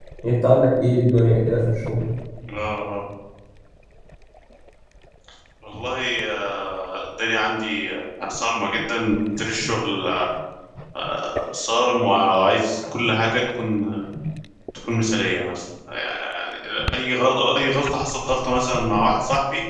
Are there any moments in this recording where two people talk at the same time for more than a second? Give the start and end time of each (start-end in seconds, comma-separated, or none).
none